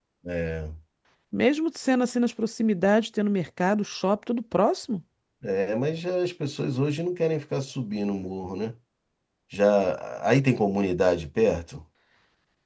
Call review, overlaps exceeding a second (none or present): none